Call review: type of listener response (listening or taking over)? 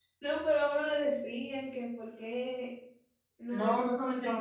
taking over